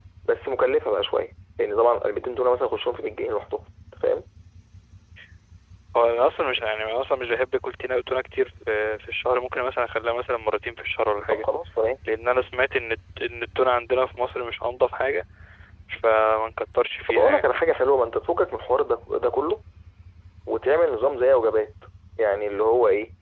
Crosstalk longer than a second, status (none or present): none